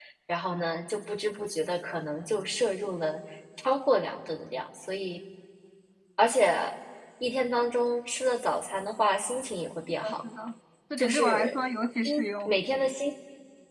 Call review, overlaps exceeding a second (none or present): none